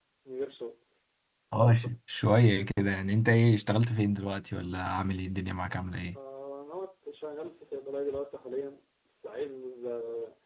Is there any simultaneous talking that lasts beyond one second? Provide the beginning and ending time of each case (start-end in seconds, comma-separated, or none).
none